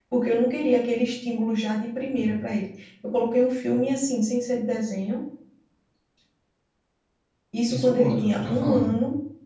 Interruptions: present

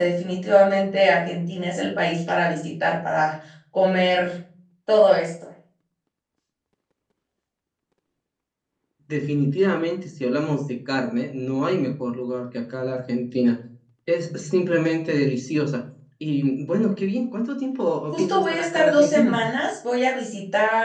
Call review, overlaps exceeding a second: present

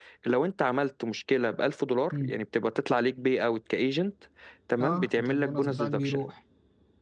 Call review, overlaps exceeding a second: present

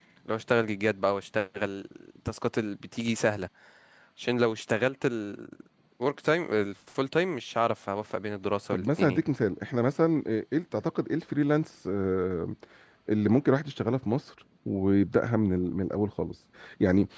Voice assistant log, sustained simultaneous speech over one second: none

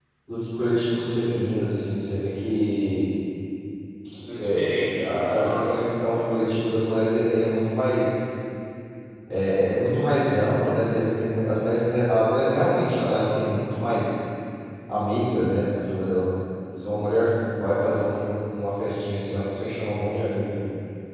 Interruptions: present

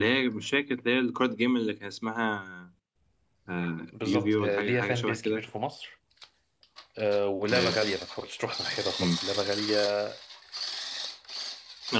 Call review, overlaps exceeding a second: present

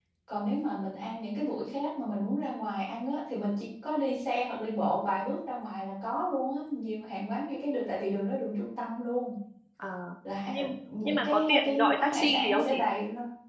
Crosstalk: present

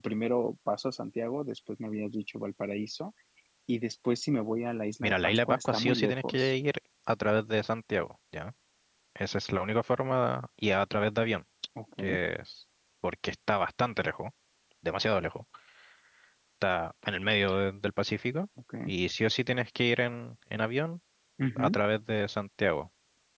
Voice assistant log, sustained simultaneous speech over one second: present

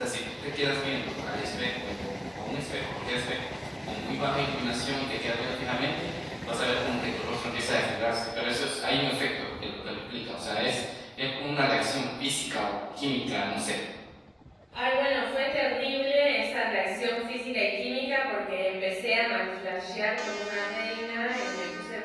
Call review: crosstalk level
none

